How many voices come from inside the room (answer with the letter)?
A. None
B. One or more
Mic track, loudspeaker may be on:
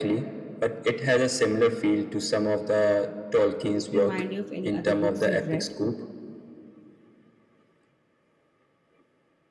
B